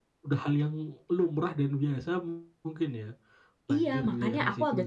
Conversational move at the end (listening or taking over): taking over